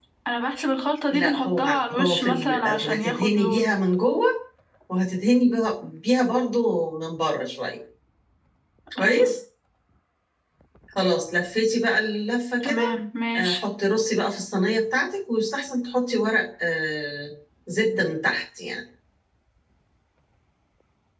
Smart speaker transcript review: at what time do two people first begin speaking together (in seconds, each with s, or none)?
1.1 s